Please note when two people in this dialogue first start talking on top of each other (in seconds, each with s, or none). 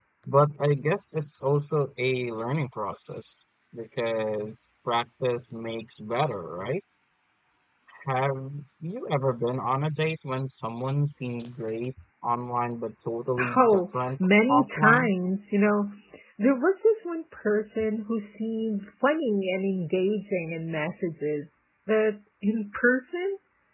13.4 s